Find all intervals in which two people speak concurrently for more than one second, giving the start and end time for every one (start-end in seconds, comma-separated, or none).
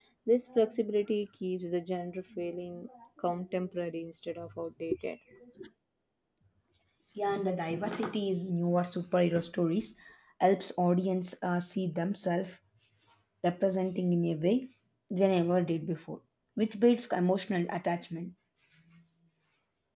none